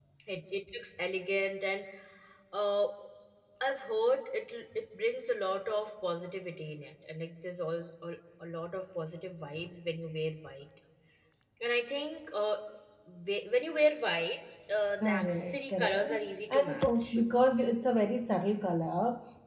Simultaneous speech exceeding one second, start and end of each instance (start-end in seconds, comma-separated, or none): 15.0-17.2